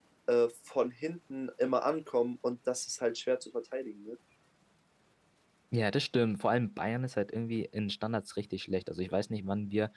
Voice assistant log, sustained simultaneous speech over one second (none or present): none